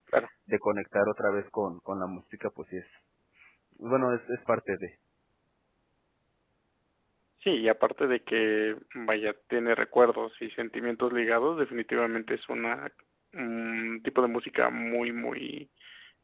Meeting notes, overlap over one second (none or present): none